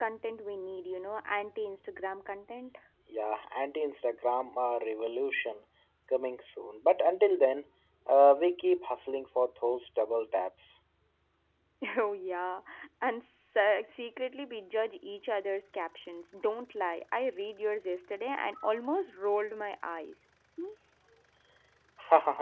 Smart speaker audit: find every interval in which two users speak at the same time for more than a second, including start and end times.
none

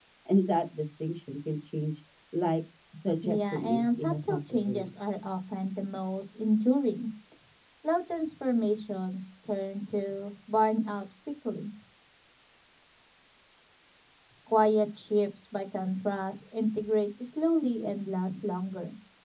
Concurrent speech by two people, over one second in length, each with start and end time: 3.2-5.2

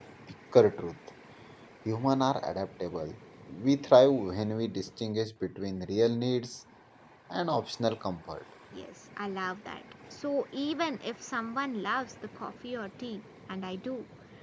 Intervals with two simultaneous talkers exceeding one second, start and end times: none

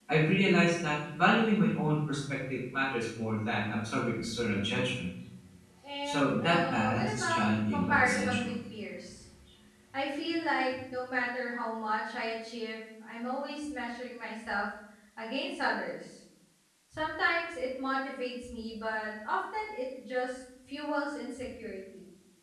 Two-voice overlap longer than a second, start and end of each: 6.0-8.5

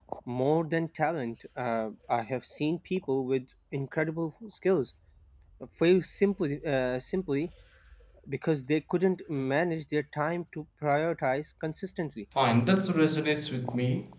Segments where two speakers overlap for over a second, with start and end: none

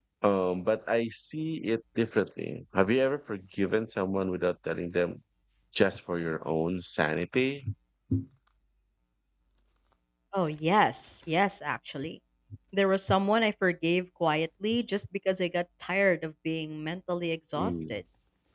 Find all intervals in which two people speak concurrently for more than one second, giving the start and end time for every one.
none

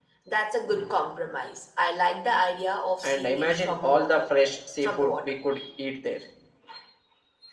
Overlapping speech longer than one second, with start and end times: 3.0-4.3

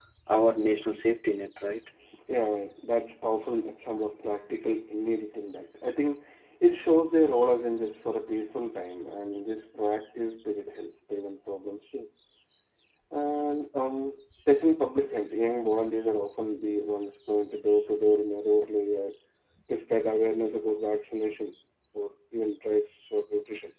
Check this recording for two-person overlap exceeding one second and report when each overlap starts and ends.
none

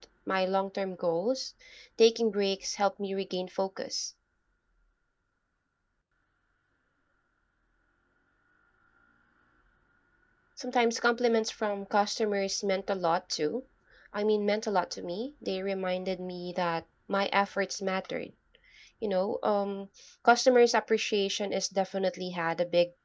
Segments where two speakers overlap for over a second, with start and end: none

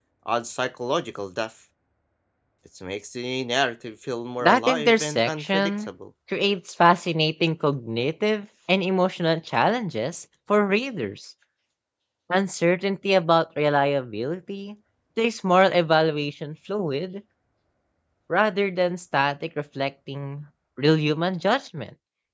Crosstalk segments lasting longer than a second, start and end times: 4.4-5.9

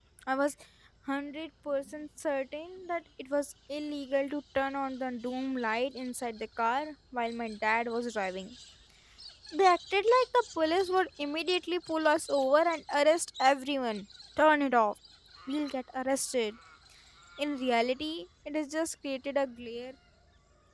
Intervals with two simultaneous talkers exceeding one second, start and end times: none

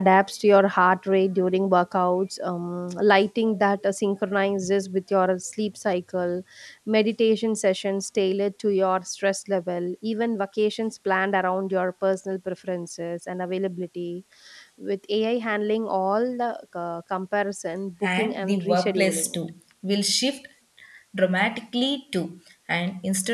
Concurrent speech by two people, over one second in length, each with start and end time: 18.2-19.4

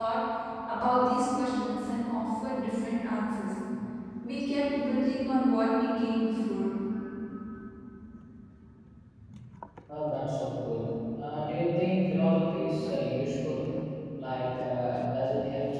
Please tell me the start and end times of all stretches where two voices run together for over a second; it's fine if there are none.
none

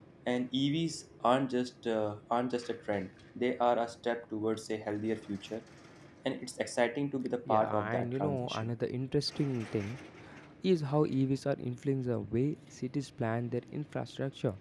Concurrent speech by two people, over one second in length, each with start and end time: 7.5-8.7

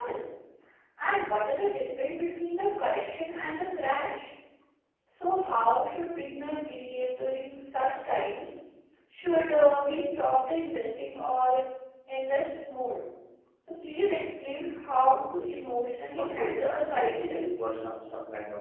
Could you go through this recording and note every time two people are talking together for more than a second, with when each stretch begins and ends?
16.2-17.6

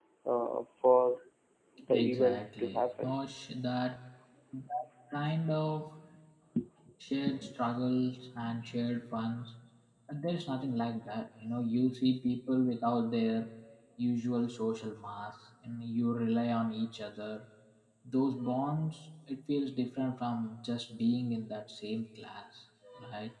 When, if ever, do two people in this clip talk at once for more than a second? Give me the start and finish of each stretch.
1.9-3.1

